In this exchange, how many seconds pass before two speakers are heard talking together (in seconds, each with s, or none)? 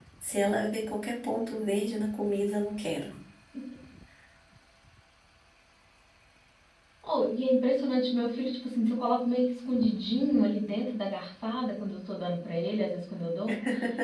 none